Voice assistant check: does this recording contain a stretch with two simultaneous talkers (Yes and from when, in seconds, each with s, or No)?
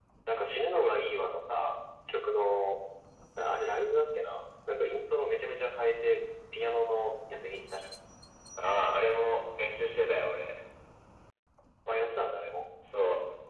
No